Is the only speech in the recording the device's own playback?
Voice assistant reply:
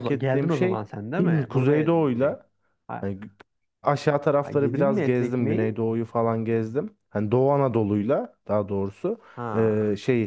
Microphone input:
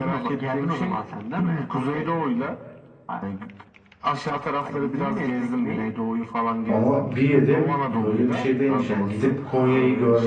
No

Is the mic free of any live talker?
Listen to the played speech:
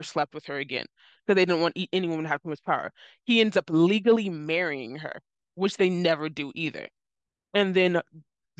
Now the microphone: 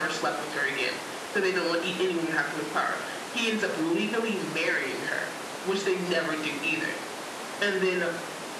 Yes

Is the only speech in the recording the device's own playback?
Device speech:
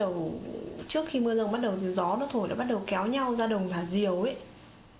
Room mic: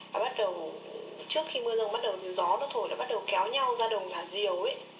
Yes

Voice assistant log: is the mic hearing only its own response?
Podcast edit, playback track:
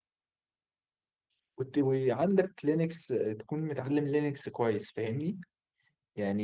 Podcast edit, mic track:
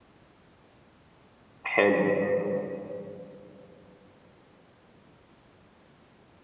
No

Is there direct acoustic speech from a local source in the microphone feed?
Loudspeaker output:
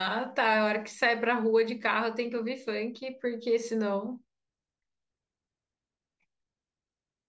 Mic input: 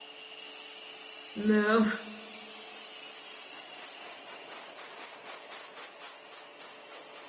Yes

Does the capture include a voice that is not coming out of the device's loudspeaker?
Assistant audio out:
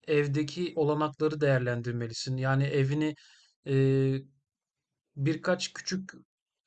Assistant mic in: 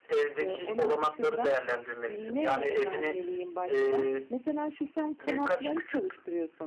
Yes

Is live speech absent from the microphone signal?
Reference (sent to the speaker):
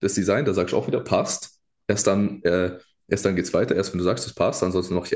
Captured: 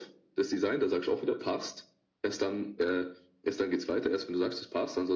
Yes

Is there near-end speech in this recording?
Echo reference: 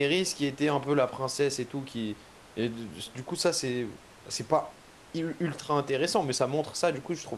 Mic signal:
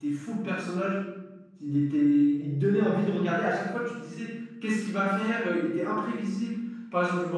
Yes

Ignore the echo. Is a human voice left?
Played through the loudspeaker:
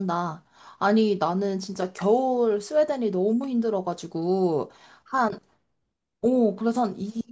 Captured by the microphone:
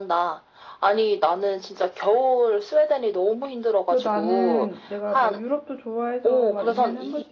Yes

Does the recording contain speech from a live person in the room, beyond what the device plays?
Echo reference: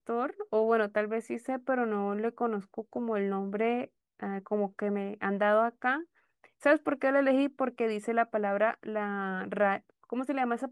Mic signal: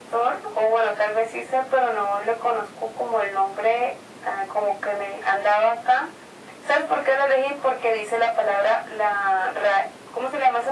No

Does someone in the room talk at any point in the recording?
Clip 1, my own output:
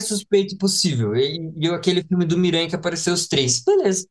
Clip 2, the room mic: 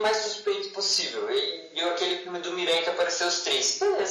No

